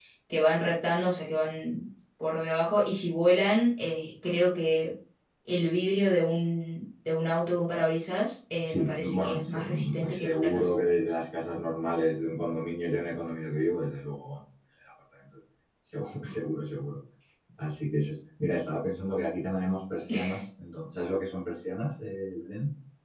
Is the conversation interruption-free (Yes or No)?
No